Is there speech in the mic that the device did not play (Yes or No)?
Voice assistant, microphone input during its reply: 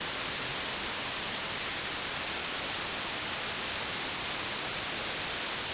No